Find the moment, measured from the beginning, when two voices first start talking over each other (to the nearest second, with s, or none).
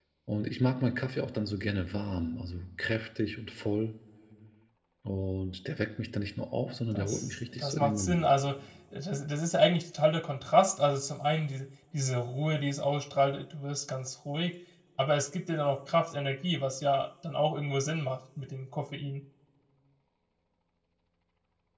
7 s